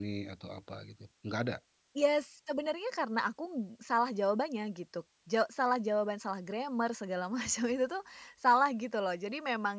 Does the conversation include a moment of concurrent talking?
No

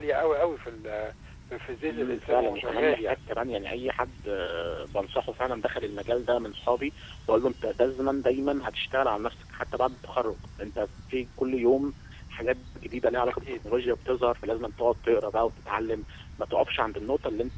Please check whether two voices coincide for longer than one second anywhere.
Yes, from 1.9 s

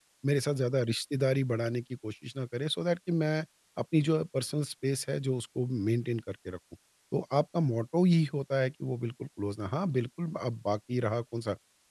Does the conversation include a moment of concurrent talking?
No

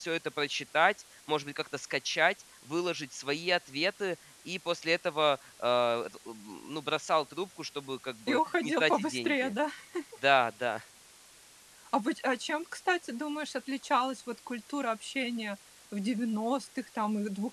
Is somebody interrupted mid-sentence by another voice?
Yes, from 8.3 s

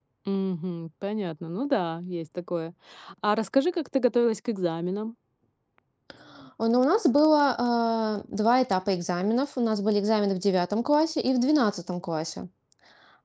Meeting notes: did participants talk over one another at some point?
No

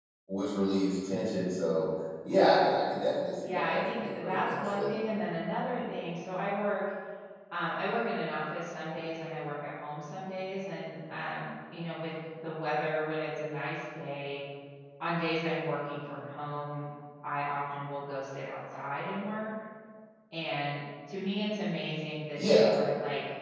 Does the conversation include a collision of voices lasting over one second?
Yes, from 3.4 s

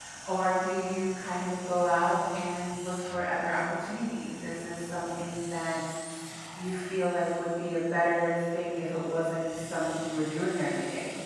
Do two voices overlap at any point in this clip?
No

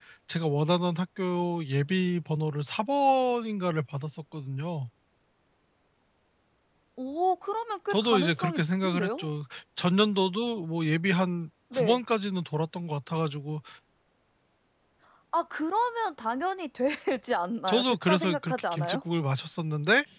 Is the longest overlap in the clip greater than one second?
Yes, from 7.9 s

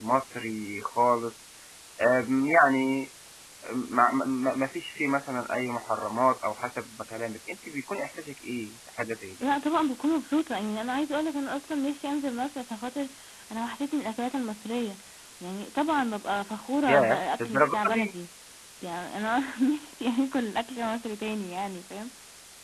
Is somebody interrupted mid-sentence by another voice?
Yes, from 16.9 s

